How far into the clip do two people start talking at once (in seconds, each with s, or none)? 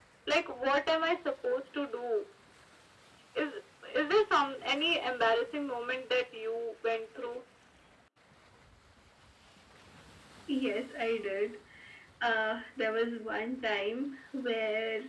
none